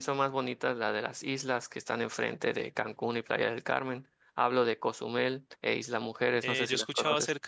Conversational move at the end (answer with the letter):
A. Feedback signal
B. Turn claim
B